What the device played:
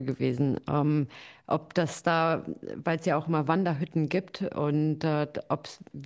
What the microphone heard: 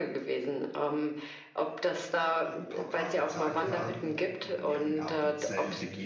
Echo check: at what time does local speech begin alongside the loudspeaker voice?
2.0 s

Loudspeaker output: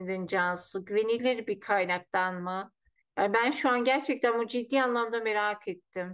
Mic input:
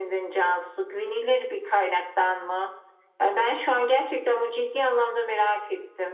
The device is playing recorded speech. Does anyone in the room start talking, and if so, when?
none

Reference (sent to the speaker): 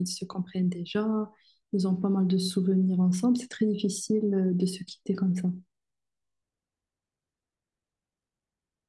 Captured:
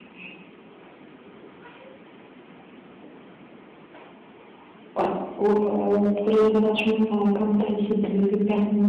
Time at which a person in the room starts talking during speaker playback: 5.0 s

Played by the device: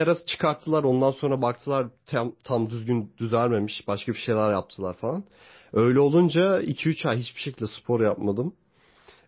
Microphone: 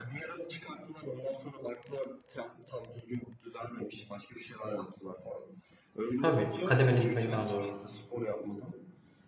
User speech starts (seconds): 6.2 s

